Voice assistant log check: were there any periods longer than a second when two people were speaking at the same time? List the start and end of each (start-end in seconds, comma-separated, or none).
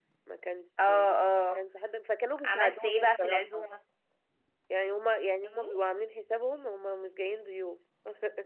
2.4-3.7